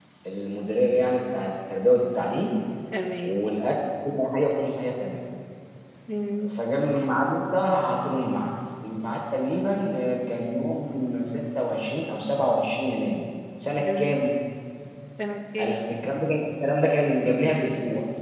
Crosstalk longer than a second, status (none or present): none